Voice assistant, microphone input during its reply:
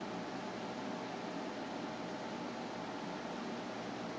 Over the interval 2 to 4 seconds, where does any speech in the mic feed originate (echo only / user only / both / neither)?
neither